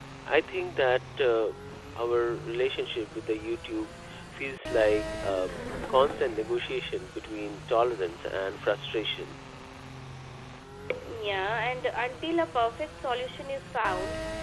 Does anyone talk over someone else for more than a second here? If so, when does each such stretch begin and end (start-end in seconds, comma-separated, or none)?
none